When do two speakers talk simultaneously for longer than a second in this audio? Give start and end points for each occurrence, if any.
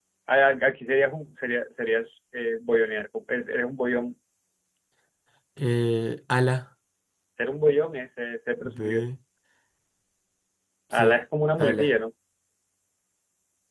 none

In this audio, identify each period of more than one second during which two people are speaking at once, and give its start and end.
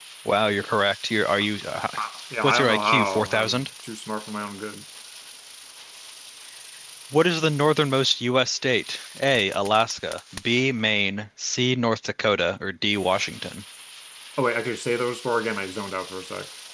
2.4-3.7

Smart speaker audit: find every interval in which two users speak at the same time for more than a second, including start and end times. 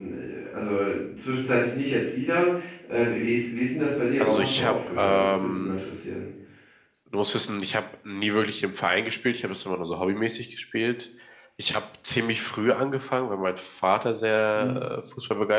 4.2-5.8

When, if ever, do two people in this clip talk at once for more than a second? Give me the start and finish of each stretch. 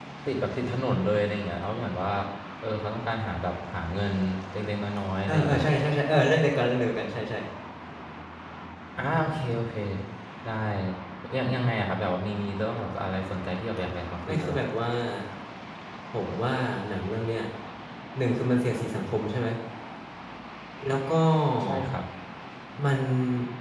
none

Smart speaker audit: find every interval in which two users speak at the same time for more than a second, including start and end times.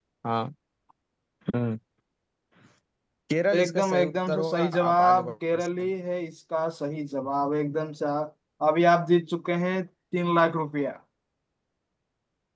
3.5-5.9

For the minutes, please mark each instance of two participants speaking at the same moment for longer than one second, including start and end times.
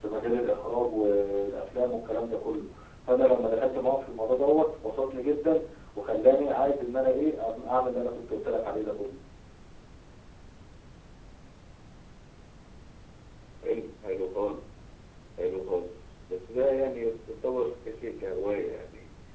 none

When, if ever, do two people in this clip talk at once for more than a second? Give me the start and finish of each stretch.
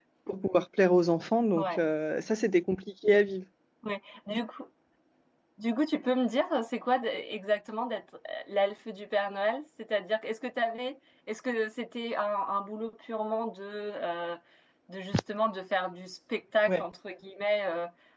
none

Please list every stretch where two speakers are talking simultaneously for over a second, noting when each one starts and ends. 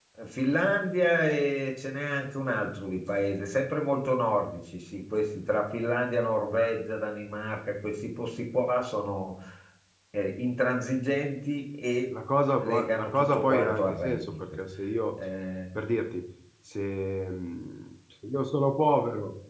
12.6-14.4

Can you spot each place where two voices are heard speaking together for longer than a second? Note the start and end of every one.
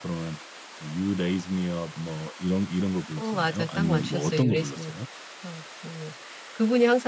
3.2-4.9

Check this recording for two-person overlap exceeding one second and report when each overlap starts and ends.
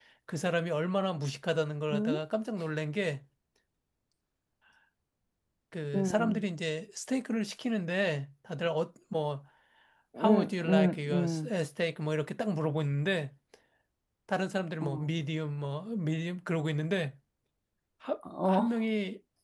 10.2-11.5

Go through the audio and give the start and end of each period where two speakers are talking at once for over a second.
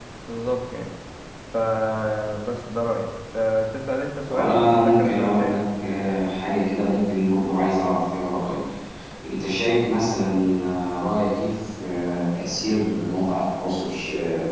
4.3-5.6

